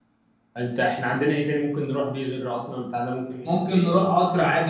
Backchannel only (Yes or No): No